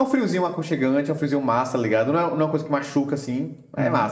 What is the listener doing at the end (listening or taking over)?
taking over